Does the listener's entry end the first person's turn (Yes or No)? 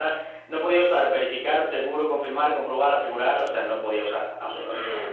Yes